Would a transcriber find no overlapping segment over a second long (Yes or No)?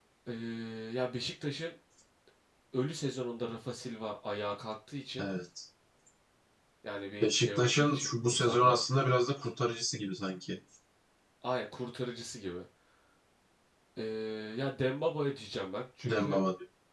No